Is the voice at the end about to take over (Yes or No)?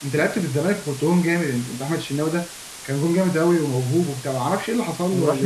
Yes